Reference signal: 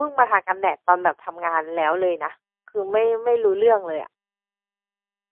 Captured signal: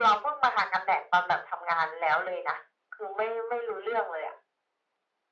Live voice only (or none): none